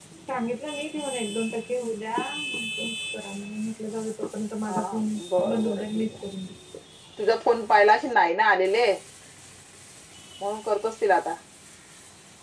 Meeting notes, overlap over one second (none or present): present